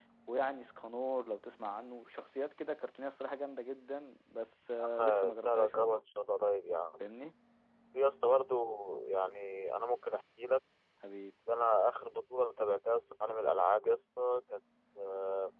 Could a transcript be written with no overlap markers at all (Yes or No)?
No